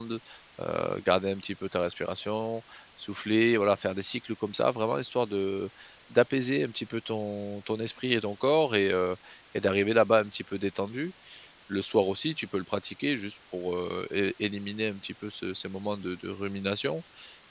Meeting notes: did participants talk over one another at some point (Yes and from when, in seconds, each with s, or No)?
No